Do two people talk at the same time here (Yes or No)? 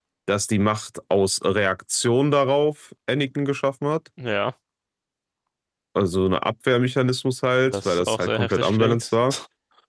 Yes